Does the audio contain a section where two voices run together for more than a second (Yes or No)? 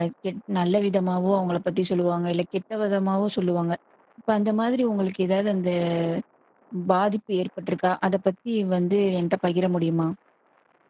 No